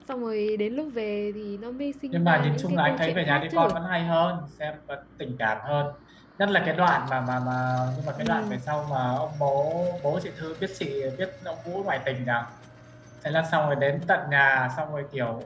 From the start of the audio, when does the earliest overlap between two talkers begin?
2.1 s

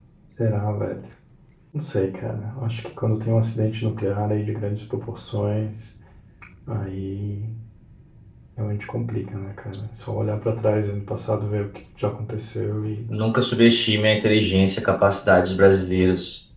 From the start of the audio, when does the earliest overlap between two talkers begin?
none

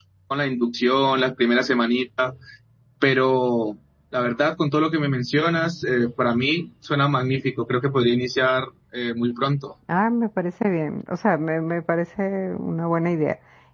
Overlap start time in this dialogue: none

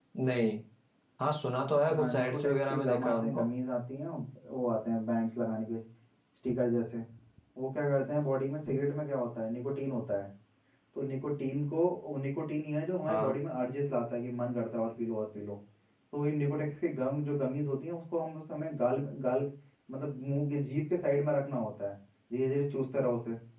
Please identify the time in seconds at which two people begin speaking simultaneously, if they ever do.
1.9 s

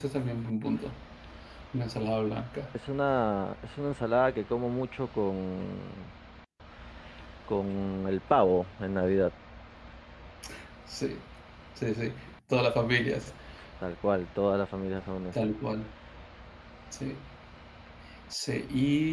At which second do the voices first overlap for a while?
none

